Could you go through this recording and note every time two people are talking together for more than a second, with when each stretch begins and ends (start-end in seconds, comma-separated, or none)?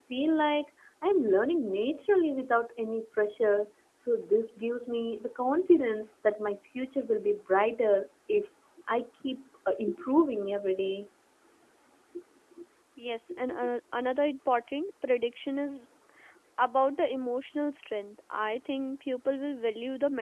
none